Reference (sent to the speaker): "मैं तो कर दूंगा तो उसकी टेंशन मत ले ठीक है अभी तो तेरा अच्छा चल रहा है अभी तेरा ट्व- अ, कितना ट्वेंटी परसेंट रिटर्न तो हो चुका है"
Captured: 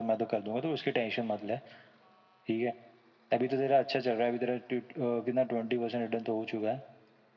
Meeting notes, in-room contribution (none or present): none